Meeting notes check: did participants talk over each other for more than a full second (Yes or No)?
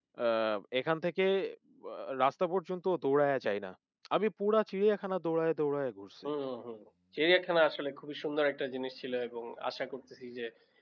No